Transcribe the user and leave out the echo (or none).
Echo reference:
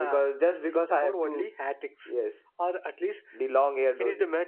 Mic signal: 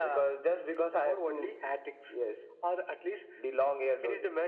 none